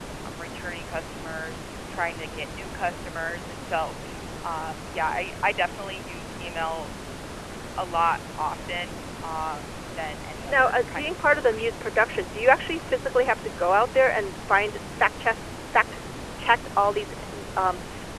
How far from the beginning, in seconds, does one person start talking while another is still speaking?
10 s

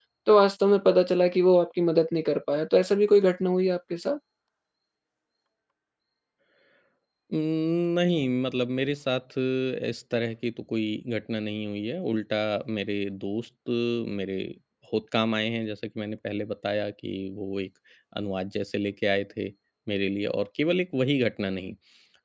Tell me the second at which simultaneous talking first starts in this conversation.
none

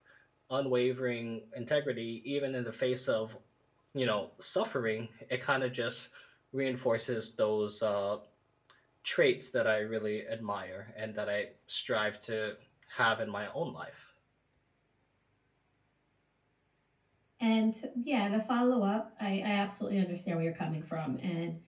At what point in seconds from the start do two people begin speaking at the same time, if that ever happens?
none

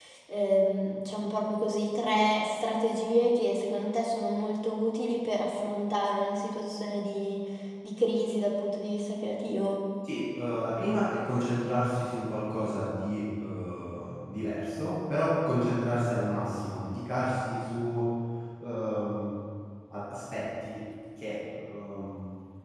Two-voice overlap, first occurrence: none

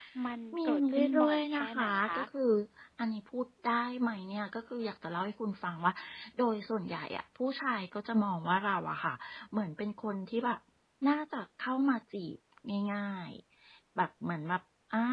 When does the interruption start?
1 s

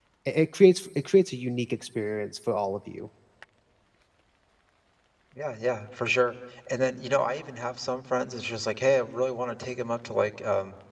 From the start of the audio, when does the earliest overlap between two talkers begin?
none

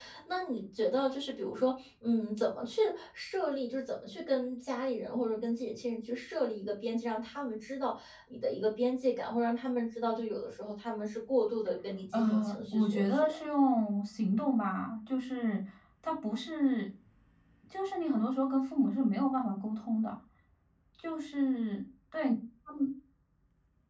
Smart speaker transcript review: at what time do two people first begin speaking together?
12 s

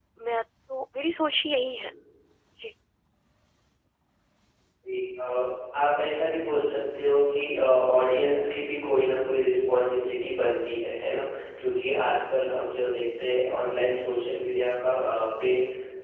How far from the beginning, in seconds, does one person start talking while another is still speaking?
none

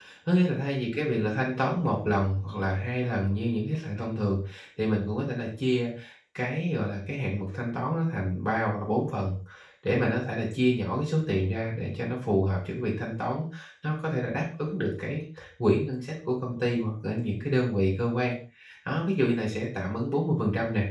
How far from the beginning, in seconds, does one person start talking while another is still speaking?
none

